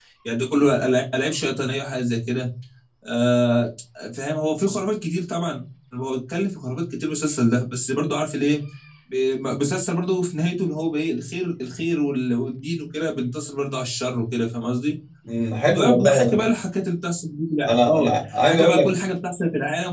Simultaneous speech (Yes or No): Yes